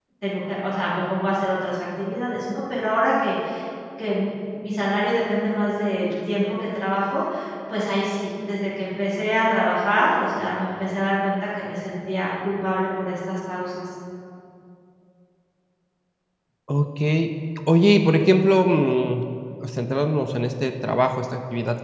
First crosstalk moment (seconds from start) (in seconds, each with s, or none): none